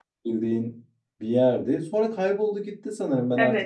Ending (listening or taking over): taking over